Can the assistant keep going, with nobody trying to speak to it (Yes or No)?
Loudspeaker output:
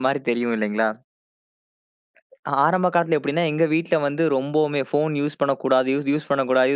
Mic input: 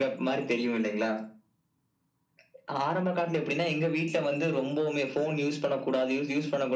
Yes